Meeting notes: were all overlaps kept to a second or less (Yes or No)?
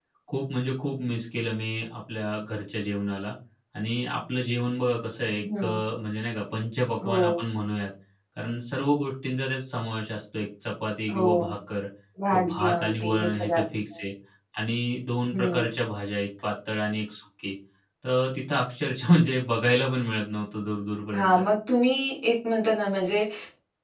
No